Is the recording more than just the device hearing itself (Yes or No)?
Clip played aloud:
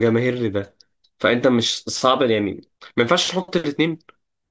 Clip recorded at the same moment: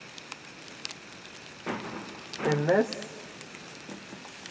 Yes